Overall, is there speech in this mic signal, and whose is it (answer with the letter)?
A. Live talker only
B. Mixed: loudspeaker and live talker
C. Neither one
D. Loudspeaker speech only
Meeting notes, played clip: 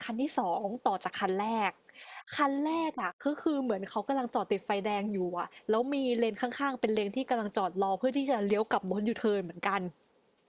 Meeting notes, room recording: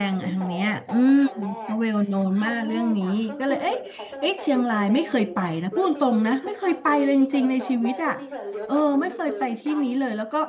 B